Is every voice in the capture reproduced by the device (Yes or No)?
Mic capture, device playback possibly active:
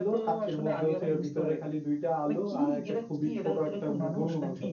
No